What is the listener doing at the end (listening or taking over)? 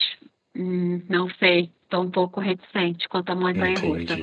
taking over